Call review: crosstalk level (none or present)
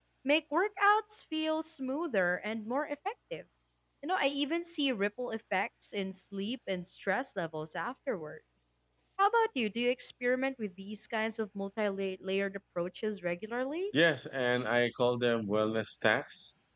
none